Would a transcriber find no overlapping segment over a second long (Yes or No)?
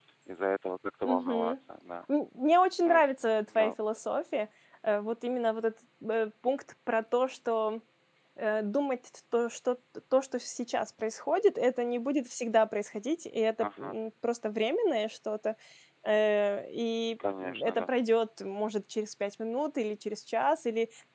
Yes